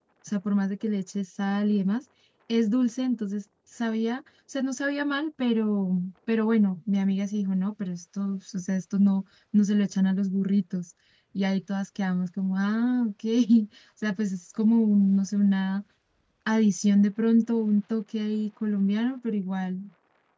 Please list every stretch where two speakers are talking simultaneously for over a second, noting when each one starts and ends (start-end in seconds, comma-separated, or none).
none